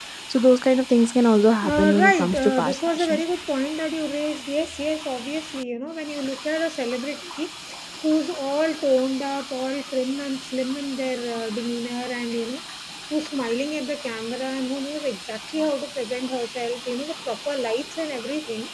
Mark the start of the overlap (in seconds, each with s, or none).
1.6 s